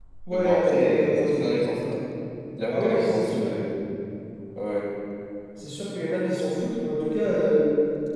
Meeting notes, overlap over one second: present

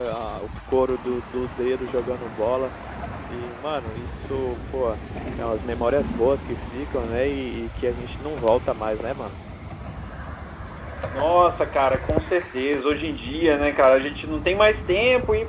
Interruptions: none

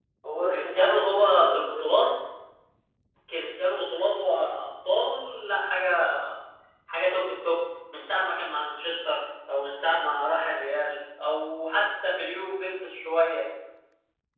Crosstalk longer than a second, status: present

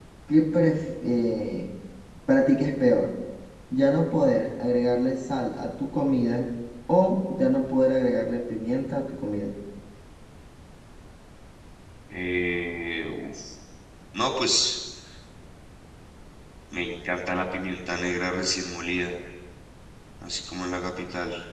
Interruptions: none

